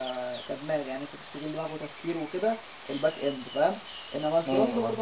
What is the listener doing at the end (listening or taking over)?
listening